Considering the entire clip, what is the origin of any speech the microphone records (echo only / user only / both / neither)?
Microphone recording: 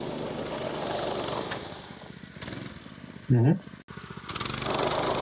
user only